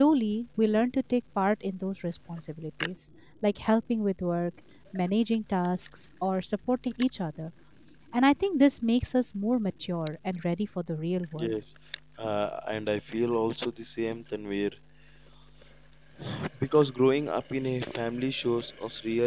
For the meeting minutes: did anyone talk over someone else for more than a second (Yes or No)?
No